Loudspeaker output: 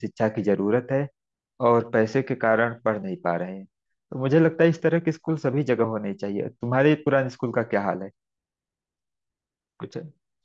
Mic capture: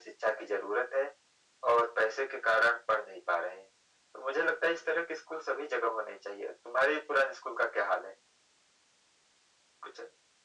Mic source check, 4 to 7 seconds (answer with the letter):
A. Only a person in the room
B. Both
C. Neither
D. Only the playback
D